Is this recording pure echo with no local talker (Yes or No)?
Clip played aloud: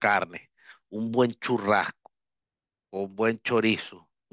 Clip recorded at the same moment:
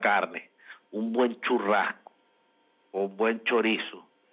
Yes